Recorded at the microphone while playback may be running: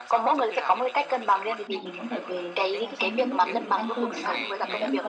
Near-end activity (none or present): present